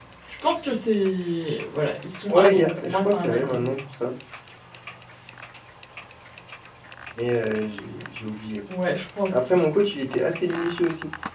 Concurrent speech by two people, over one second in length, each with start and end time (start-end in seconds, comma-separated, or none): 2.3-3.6